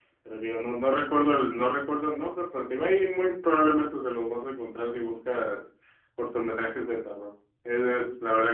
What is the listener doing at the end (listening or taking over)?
listening